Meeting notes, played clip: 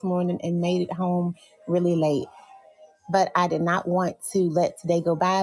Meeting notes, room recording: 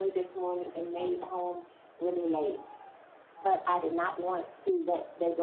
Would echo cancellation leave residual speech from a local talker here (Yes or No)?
No